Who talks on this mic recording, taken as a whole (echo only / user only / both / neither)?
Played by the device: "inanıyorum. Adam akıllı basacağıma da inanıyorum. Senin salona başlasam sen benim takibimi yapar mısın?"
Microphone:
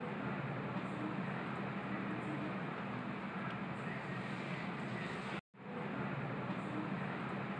neither